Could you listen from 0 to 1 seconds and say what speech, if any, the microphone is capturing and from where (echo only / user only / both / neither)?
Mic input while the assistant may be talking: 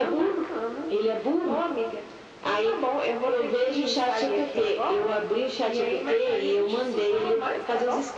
echo only